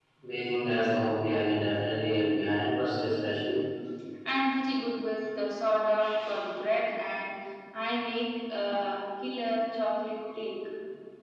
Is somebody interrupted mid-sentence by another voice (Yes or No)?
No